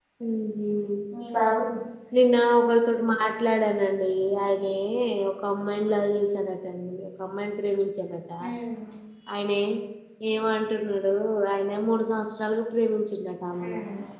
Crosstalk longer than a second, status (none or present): none